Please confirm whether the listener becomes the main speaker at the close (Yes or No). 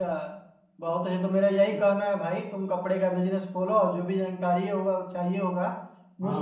No